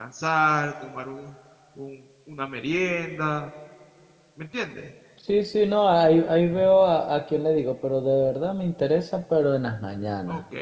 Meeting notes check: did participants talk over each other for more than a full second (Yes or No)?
No